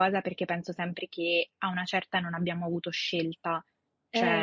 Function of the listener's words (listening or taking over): listening